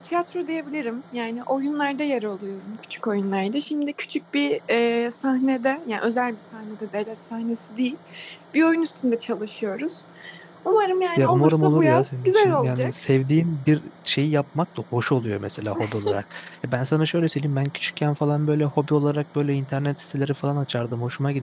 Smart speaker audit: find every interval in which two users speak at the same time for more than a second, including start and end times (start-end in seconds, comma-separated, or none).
11.2-12.9